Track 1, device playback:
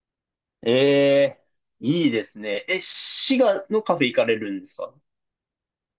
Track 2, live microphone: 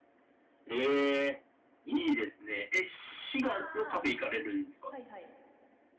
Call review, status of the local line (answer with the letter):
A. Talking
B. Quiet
A